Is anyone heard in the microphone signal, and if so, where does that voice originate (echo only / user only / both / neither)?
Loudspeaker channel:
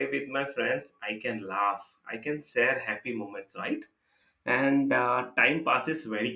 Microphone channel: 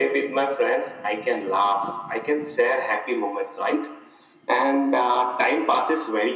echo only